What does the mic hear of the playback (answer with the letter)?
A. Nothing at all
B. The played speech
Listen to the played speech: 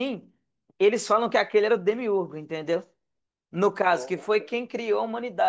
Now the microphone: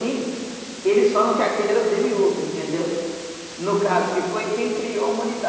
B